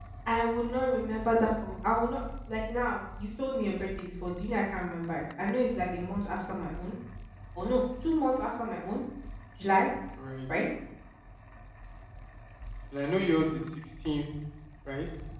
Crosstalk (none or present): none